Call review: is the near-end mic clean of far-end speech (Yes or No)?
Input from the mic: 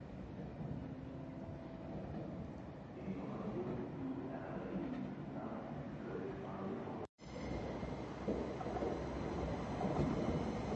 Yes